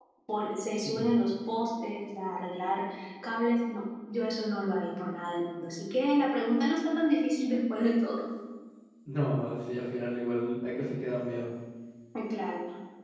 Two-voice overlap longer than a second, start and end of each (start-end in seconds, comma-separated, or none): none